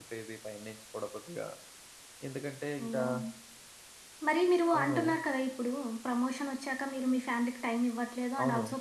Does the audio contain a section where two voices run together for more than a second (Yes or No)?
No